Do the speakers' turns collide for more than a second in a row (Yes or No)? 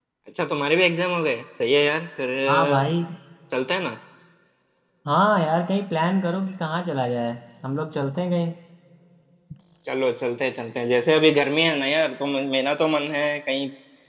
No